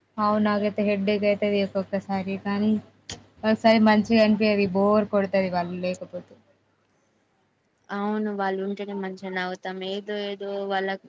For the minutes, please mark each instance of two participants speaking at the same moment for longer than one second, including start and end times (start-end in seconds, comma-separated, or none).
none